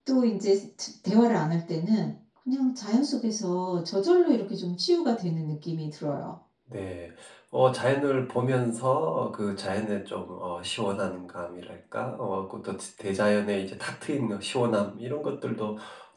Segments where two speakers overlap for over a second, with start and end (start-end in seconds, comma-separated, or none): none